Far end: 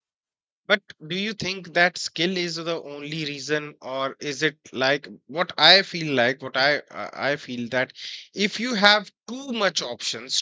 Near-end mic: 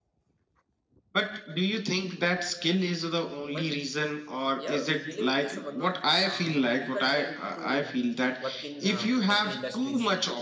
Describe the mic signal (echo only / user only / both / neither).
both